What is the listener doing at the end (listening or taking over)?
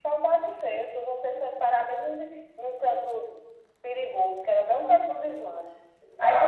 taking over